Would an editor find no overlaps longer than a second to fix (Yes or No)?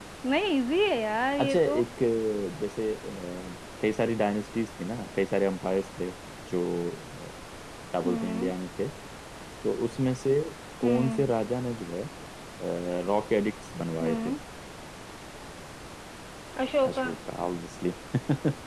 Yes